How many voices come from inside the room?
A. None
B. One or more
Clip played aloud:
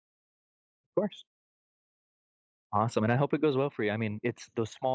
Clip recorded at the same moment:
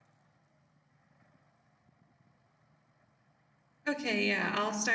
B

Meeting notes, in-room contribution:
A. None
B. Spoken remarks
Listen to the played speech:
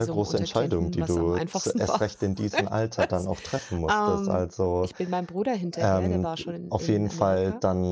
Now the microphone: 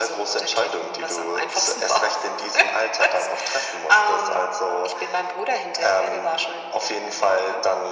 A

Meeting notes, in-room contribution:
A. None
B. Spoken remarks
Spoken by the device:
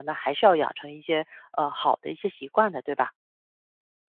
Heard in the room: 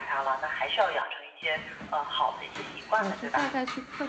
B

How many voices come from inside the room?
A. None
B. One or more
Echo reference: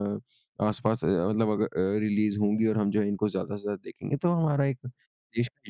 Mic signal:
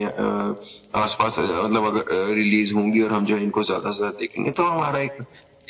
A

